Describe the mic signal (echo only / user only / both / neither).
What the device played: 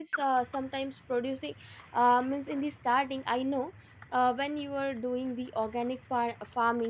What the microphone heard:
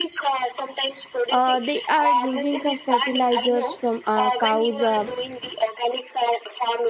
both